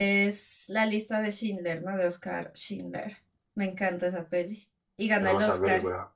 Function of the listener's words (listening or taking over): taking over